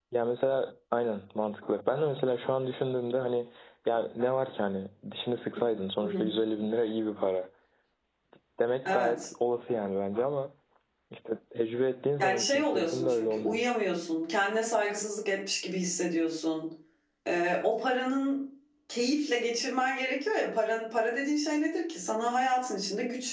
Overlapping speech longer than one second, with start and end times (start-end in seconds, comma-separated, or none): 12.2-13.6